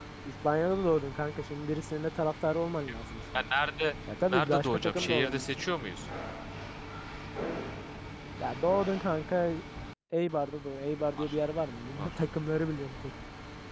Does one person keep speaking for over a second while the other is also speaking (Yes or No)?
Yes